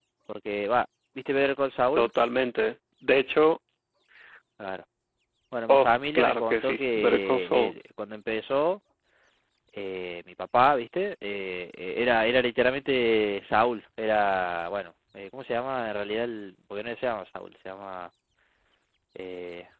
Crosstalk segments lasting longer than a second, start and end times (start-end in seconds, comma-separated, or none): 5.7-7.7